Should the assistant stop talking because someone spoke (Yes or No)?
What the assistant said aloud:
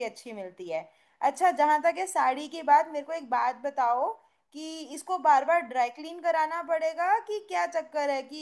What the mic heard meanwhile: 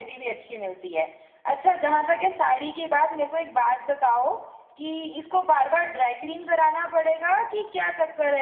No